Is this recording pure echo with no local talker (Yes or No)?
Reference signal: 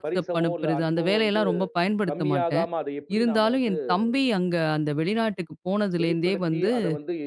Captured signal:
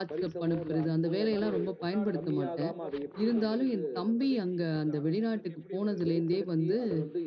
No